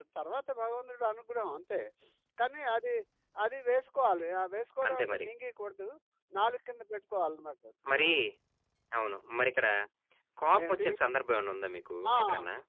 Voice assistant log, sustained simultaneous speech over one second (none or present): none